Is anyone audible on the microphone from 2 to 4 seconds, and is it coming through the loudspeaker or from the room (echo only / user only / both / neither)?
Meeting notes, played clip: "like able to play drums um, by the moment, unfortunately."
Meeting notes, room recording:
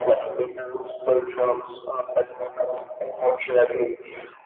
echo only